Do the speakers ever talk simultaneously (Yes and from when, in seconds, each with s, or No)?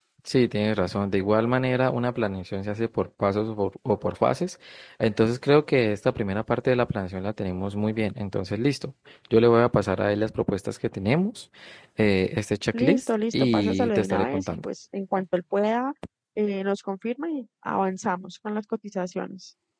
Yes, from 12.7 s